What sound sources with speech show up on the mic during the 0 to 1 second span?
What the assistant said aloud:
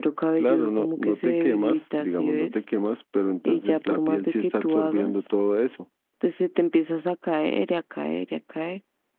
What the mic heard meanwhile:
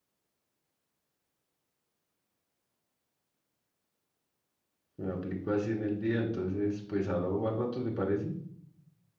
neither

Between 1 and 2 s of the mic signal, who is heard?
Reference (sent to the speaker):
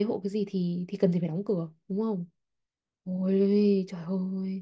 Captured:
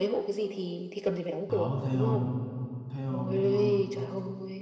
both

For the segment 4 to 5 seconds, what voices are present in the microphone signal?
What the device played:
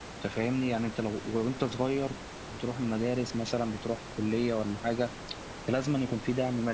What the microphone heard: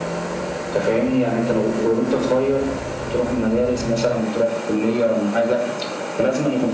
echo only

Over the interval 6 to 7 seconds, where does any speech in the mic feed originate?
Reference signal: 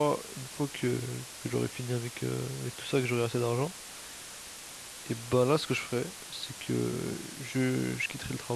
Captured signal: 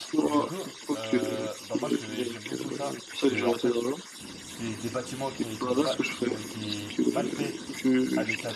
both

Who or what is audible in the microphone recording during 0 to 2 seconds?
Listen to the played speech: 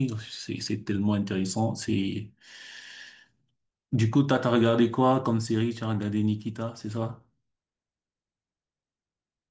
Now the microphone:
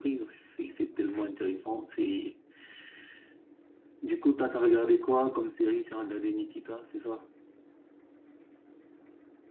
echo only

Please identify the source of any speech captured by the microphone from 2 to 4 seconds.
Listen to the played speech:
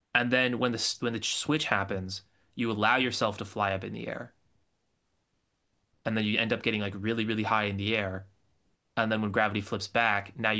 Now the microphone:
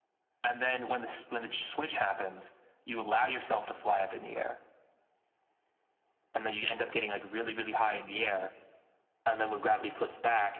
echo only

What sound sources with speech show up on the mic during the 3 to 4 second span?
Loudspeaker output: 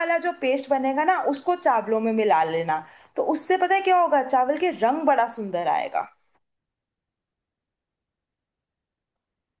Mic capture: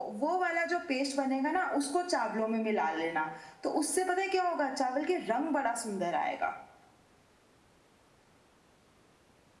echo only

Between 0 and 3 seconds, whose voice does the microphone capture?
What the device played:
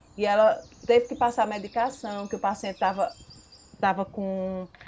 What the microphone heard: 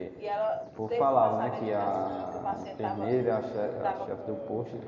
both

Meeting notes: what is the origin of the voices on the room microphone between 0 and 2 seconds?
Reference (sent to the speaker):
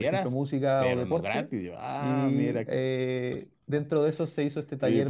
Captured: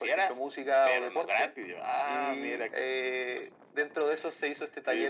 echo only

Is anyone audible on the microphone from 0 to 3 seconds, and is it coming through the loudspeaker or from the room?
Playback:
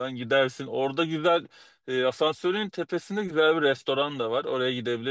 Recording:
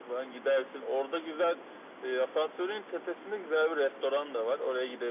echo only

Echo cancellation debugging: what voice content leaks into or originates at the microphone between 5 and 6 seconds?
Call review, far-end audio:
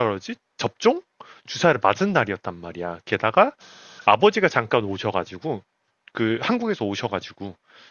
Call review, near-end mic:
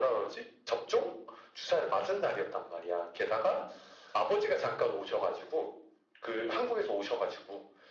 echo only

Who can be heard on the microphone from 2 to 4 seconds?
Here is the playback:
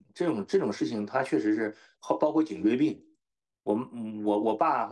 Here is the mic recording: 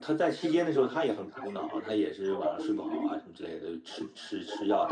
both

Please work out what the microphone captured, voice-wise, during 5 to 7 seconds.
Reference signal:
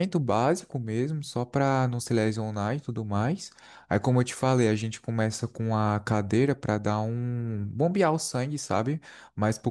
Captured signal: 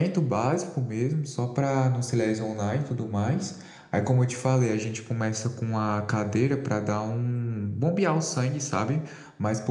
echo only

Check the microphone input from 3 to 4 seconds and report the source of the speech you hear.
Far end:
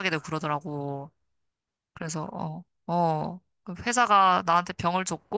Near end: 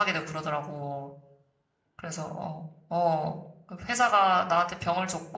echo only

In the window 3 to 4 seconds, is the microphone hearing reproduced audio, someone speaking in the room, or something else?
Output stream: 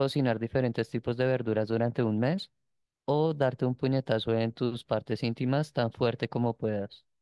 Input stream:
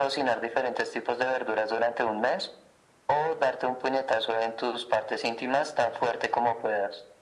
echo only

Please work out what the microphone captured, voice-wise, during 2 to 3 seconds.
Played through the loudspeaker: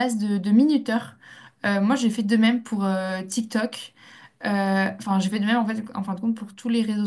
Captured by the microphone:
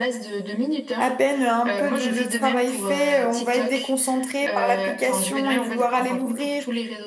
both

